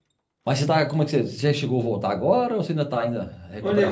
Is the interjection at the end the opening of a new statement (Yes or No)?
Yes